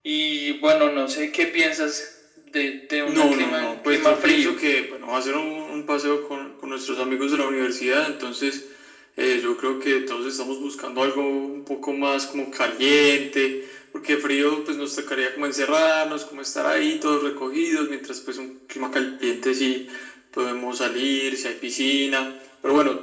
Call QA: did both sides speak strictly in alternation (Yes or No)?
No